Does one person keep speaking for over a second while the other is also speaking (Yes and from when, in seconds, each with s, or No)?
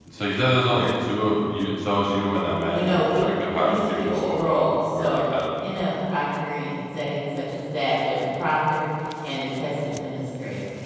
Yes, from 2.7 s